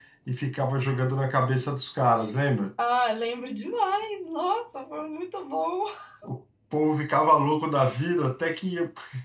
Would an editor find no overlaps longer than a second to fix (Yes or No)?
Yes